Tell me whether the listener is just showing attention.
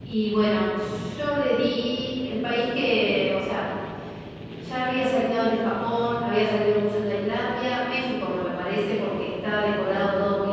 Yes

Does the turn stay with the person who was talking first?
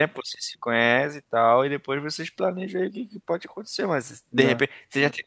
Yes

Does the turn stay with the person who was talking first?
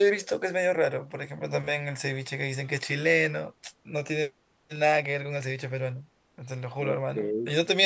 Yes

